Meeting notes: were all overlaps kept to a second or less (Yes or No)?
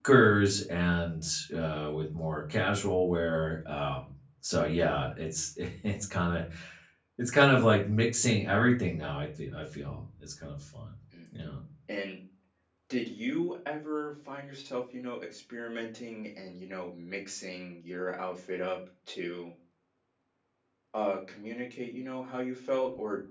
Yes